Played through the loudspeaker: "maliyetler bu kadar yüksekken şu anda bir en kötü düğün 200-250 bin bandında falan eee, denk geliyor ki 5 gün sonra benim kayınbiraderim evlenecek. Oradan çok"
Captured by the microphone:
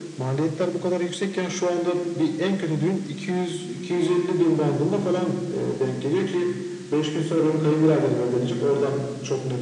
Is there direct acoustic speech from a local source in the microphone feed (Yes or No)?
No